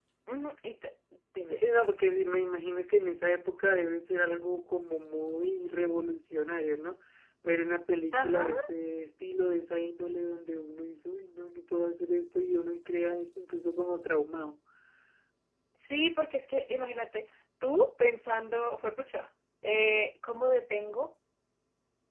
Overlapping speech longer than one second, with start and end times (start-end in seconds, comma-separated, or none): none